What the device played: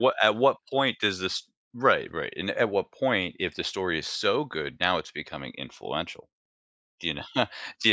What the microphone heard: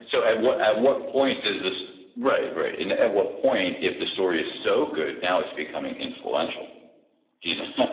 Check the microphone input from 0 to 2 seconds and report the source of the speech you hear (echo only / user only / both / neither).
echo only